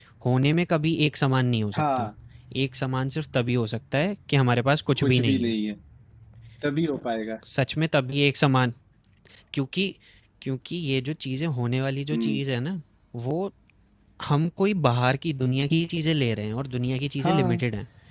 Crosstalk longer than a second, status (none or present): none